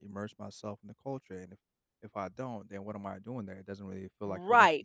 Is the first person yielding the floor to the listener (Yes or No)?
Yes